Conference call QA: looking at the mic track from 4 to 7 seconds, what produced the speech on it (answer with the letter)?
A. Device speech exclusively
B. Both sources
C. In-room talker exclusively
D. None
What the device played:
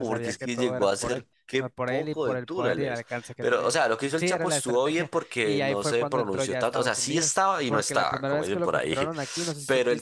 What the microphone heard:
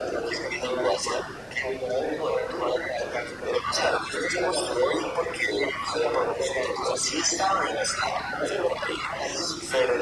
A